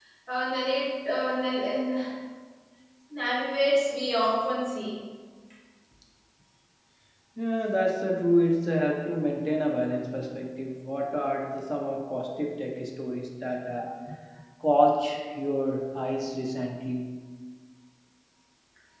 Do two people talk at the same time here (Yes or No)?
No